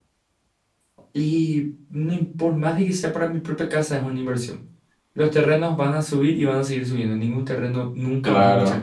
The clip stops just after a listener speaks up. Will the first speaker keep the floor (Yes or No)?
No